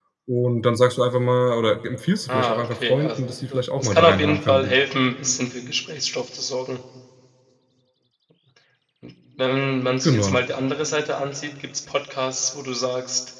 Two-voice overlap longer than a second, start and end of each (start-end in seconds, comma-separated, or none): 2.3-4.8